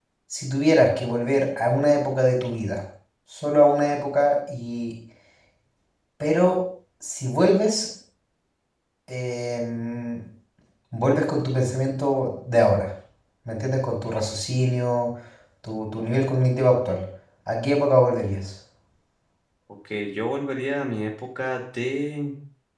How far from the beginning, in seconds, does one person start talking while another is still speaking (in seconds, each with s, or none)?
none